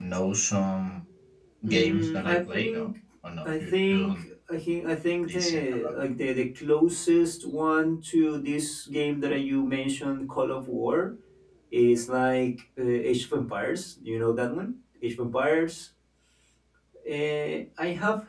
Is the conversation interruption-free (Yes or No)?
No